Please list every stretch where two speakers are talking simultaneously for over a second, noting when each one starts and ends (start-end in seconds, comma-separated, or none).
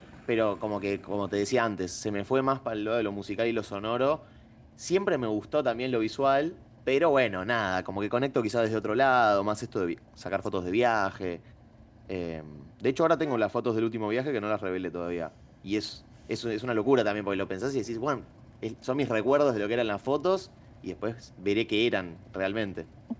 none